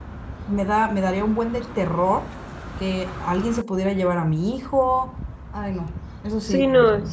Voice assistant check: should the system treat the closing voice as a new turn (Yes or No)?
Yes